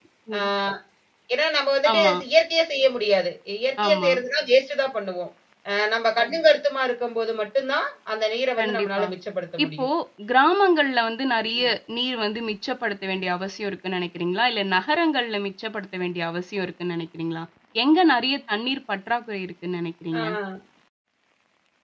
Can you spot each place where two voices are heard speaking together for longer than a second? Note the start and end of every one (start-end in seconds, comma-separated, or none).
none